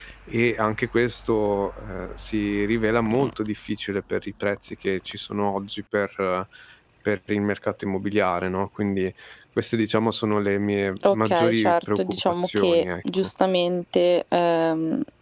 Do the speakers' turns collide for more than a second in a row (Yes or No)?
Yes